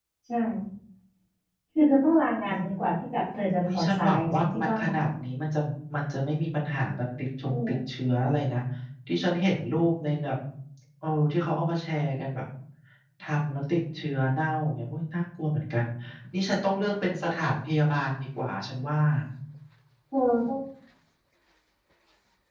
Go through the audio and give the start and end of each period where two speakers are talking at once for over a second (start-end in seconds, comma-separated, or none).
3.7-4.9